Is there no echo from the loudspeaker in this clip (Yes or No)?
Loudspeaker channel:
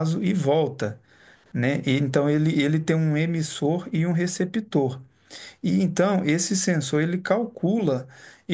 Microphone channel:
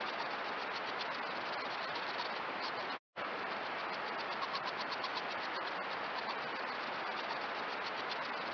Yes